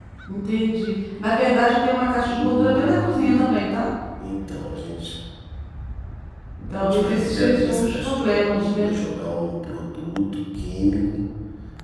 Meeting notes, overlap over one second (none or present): present